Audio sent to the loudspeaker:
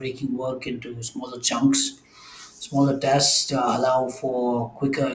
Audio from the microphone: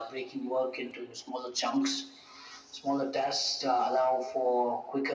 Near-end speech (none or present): none